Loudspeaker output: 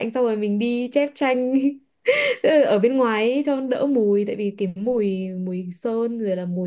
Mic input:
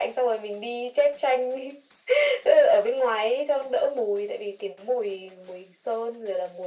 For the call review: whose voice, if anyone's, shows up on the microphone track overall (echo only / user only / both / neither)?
echo only